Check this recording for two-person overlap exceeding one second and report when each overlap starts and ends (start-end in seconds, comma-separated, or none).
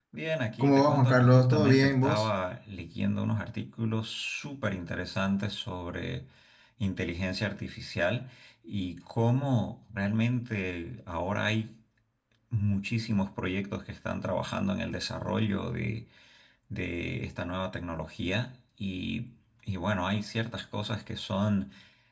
0.6-2.3